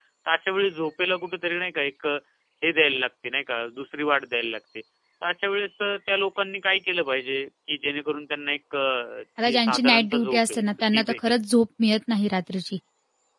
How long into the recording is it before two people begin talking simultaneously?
9 s

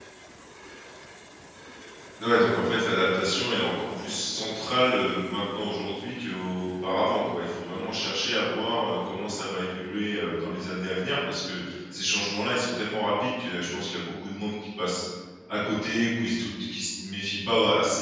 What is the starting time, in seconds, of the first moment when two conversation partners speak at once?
none

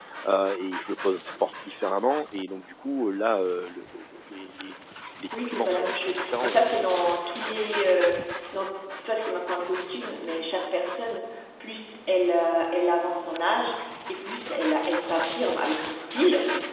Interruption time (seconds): 5 s

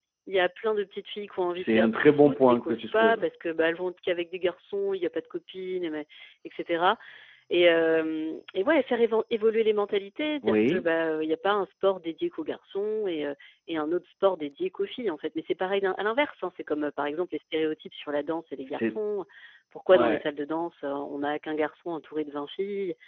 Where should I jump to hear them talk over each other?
2 s

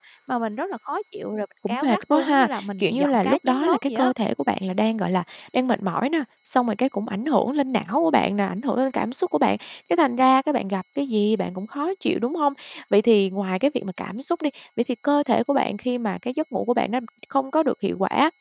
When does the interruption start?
2 s

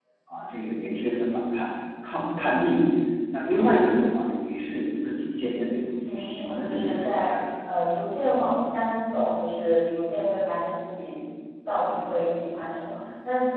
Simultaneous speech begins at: 6 s

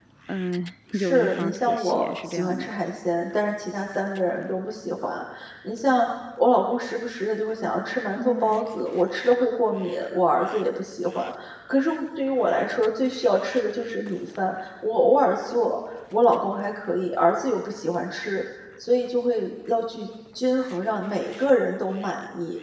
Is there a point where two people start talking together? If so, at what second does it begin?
1 s

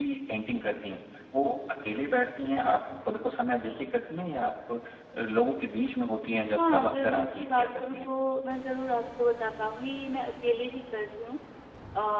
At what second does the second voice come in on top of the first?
7 s

